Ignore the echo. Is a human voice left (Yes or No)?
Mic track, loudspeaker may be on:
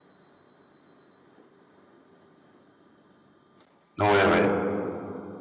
Yes